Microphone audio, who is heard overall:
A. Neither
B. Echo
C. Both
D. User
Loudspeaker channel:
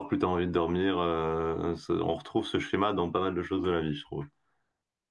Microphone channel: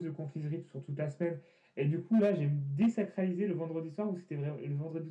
D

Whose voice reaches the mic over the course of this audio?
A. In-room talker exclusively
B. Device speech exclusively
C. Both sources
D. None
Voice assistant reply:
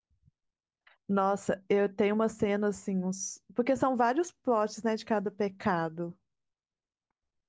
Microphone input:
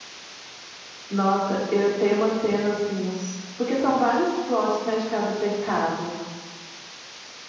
B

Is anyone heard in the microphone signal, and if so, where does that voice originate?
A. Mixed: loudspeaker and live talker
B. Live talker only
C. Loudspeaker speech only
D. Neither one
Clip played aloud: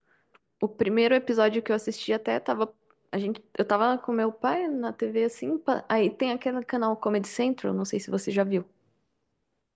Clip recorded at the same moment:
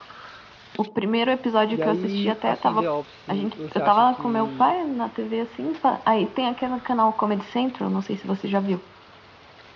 A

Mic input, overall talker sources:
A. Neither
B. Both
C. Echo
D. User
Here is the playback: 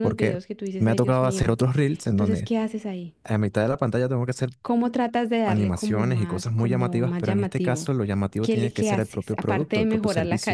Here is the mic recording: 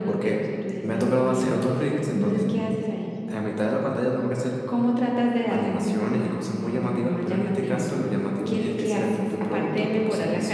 C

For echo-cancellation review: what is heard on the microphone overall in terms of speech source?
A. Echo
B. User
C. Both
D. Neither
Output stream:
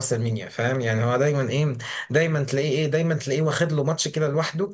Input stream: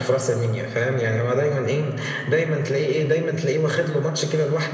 A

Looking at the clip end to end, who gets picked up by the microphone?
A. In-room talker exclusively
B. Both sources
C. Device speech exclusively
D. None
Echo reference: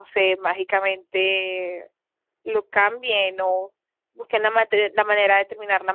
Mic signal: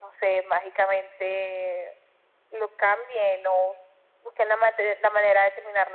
C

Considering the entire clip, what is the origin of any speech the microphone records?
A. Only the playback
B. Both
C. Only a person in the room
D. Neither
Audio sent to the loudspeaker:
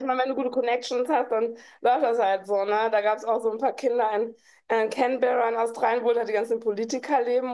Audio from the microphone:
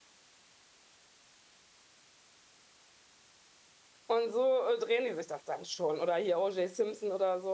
C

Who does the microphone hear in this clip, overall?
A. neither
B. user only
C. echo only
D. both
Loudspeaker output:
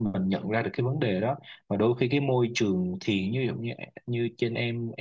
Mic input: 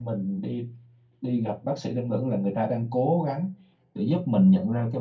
B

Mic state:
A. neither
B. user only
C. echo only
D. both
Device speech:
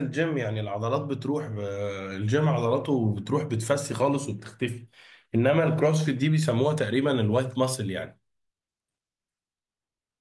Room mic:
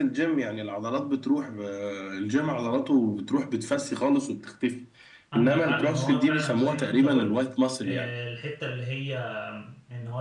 D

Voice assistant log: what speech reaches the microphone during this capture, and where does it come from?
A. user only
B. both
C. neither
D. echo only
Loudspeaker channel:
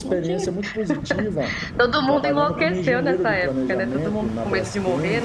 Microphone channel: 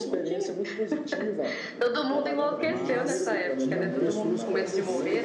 B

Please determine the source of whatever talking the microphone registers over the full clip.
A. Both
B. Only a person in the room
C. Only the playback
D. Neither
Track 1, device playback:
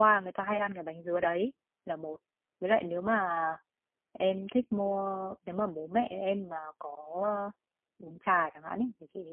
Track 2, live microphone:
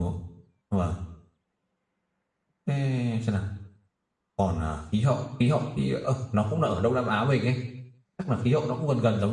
B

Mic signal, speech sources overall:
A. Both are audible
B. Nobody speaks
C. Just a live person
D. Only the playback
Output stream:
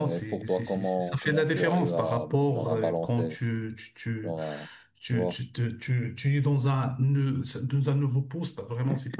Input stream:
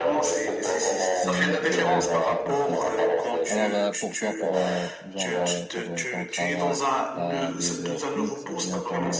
A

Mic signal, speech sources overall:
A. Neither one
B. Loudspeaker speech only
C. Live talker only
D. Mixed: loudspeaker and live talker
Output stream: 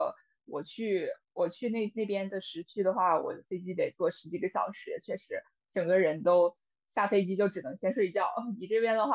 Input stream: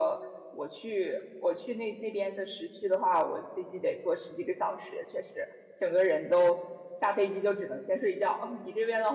B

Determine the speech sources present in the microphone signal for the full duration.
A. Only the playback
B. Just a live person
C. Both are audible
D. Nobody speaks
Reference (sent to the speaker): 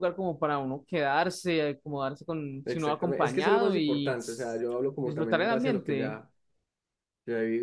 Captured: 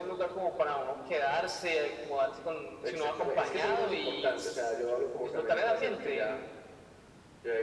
A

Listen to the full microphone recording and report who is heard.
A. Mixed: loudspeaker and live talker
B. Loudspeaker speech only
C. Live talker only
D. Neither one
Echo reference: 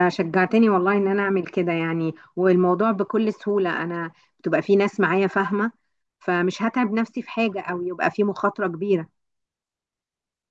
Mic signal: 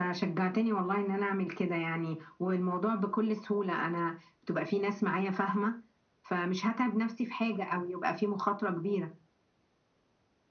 B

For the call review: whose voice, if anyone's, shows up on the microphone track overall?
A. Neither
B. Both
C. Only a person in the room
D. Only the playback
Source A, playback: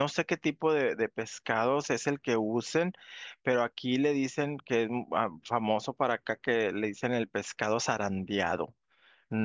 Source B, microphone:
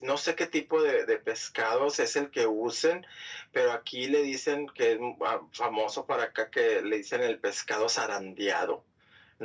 D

